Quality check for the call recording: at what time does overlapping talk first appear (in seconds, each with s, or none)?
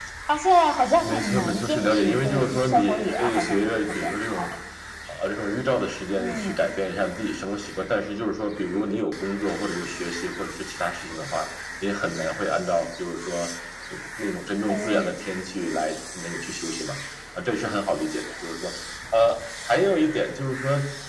1.0 s